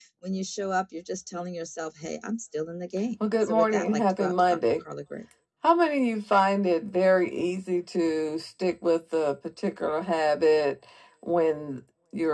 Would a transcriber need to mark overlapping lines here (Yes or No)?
Yes